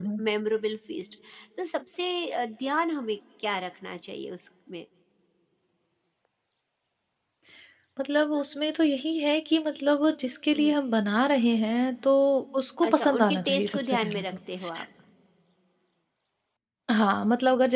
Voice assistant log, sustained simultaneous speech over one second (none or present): present